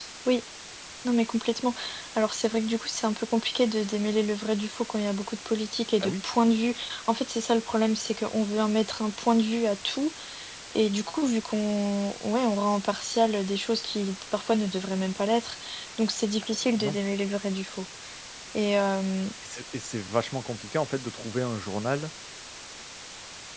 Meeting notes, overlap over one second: none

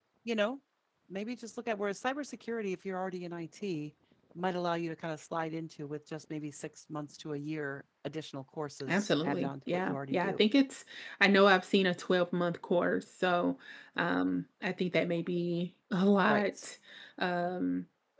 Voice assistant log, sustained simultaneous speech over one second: present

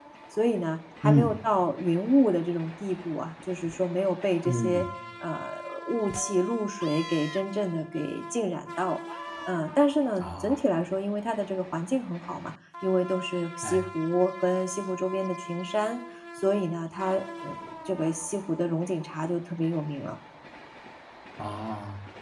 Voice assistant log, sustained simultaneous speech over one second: none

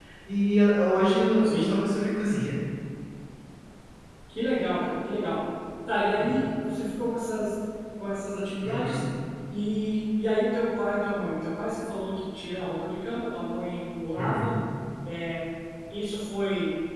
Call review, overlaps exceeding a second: none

